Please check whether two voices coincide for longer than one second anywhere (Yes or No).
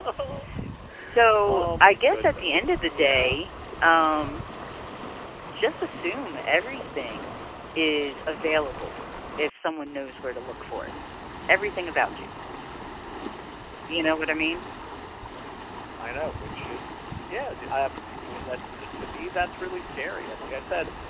Yes